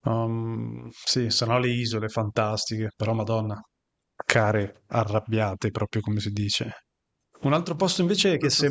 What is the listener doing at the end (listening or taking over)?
listening